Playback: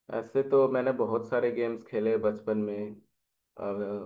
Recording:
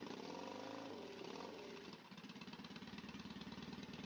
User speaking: No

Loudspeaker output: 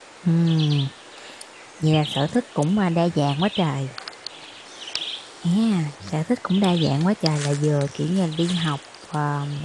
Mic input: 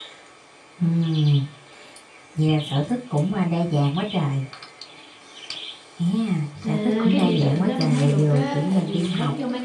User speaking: Yes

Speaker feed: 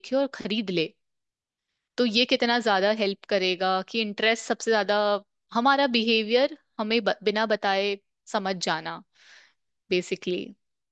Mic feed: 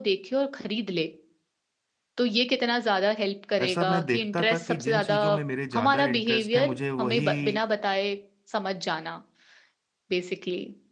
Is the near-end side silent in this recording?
No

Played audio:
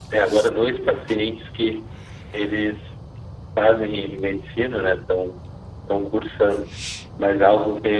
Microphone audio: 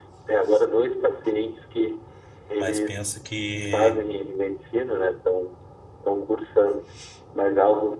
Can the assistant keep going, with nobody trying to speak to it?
No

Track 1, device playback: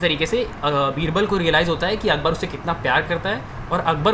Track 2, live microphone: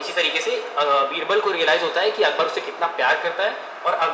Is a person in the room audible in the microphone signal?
No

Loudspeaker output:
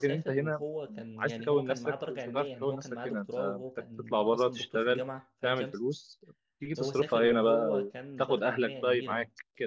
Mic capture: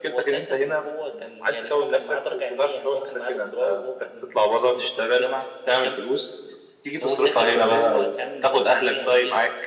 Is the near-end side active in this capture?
No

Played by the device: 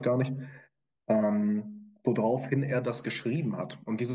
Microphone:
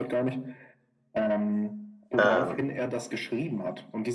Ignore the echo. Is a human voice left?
Yes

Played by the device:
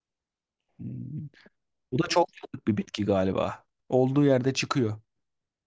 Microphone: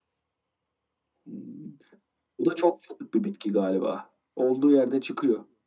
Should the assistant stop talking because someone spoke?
No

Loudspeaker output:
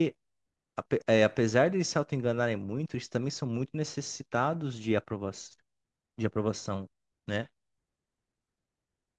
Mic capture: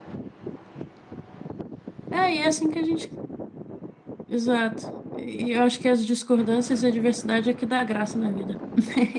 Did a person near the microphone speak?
Yes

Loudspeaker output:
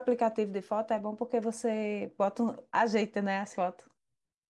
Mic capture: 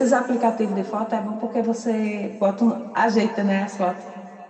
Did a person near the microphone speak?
No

